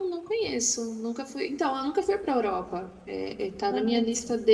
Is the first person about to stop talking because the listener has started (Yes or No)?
No